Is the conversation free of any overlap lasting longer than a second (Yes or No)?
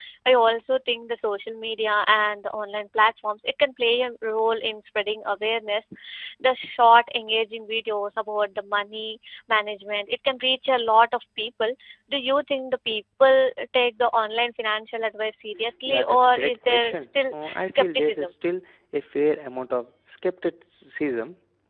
No